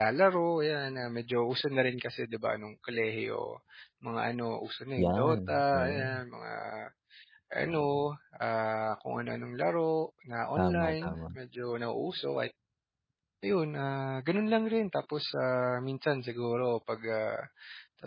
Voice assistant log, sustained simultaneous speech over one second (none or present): present